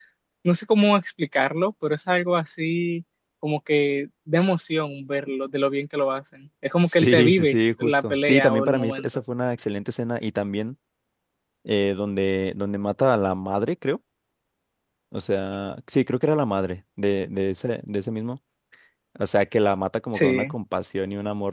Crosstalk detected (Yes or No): Yes